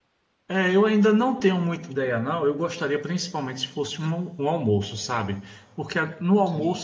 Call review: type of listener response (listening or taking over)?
listening